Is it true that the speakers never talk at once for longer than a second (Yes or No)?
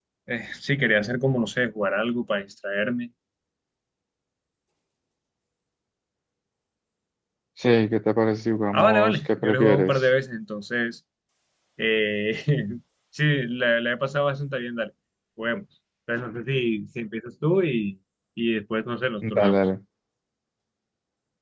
No